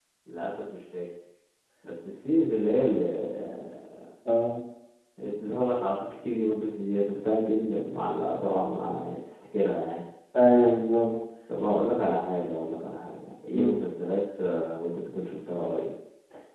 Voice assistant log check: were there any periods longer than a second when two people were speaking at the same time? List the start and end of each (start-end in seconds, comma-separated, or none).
none